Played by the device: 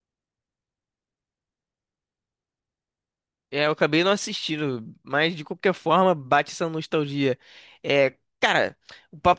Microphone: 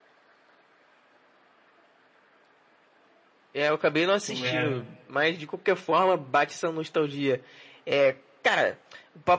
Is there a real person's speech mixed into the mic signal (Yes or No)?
Yes